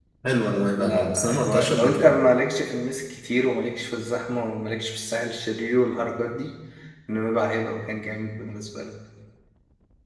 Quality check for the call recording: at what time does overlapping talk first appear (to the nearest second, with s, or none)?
1 s